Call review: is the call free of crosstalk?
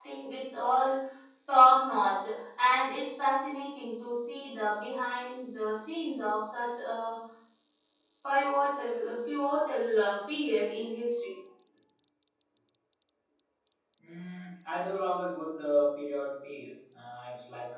Yes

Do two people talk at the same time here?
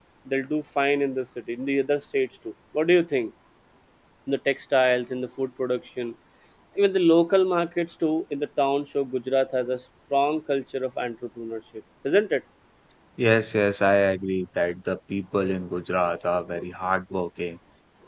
No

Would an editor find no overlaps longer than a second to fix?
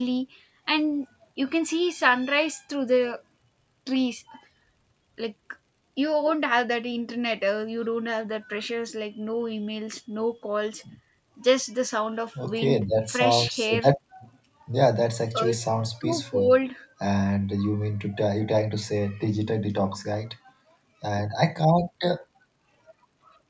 No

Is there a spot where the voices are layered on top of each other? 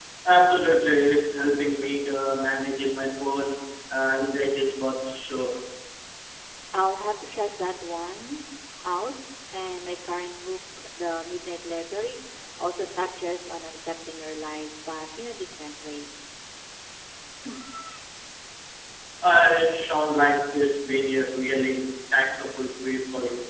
No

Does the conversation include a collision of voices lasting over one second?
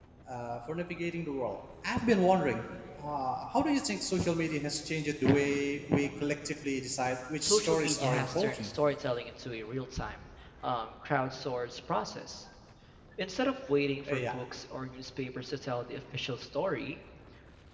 Yes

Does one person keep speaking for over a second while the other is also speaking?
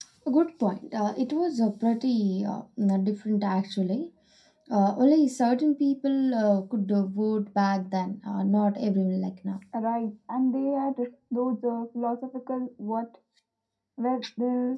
No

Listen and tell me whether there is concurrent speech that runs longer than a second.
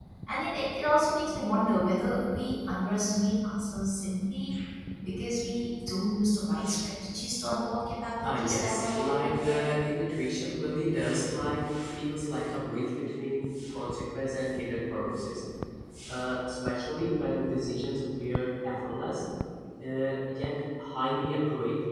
Yes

